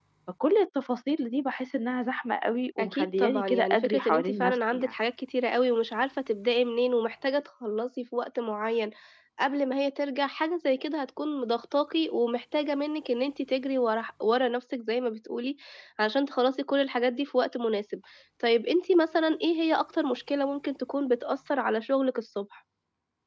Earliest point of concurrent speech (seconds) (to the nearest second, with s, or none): 3 s